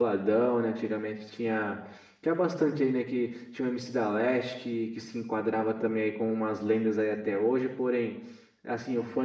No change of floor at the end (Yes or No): Yes